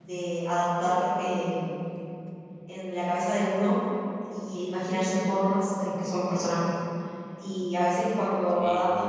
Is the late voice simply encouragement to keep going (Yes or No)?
Yes